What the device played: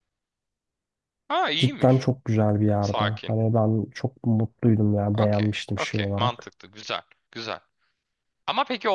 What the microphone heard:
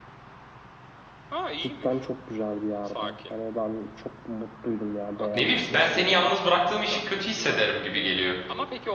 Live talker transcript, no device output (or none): Ne bileyim ben seni yalnız bıraktığım için kötü hissederim gibi geliyor.